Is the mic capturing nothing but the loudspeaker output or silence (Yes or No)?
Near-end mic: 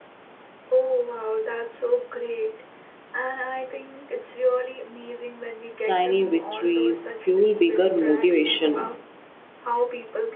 No